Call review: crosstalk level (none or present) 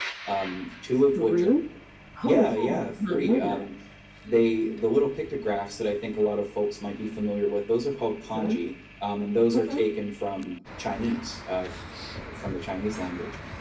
present